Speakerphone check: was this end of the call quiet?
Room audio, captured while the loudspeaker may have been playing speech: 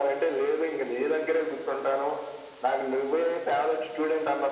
Yes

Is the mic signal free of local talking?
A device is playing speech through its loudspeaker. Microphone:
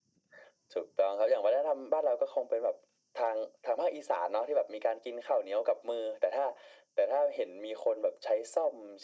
Yes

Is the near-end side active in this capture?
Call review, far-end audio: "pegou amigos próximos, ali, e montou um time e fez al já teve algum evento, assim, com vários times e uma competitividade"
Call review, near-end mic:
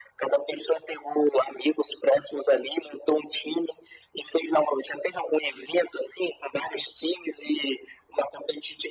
No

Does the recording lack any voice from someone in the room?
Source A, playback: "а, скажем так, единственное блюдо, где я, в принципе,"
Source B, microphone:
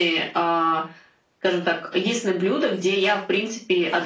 Yes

